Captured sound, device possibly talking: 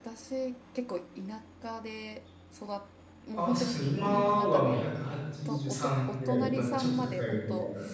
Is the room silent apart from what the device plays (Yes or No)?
No